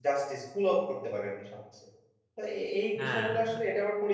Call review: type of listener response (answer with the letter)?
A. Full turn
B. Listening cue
B